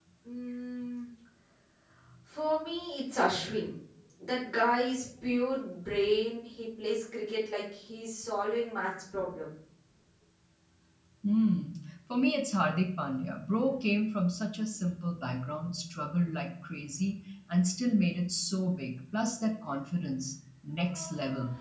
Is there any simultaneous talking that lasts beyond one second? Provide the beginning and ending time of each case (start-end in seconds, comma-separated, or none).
none